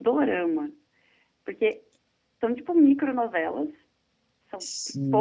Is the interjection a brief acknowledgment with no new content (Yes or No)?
Yes